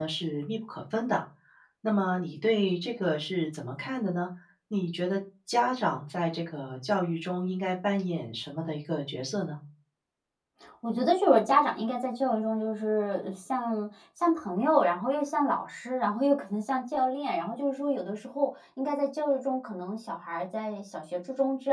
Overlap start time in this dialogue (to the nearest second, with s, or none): none